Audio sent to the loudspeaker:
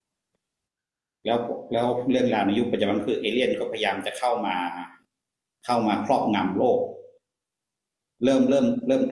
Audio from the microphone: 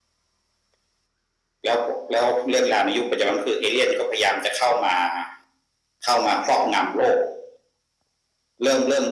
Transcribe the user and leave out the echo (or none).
none